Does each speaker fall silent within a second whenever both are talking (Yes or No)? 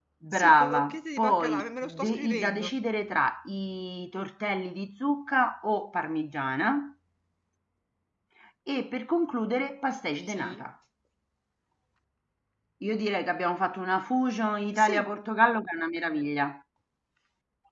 No